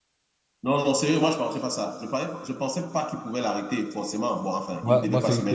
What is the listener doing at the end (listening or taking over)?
taking over